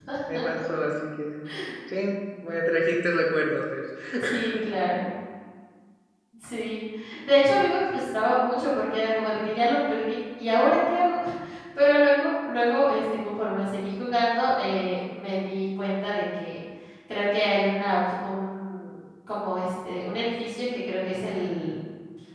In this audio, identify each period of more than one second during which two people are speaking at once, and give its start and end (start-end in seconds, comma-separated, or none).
none